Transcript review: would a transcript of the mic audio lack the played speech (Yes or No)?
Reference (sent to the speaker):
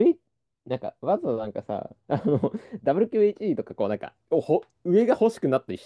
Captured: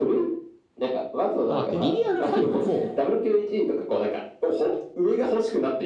No